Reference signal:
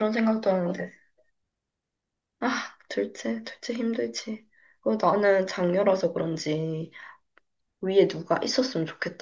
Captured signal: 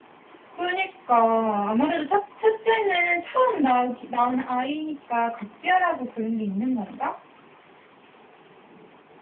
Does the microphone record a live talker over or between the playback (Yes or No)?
Yes